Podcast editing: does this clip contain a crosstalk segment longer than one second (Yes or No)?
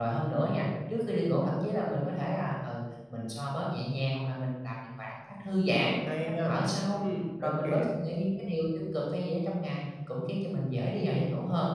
No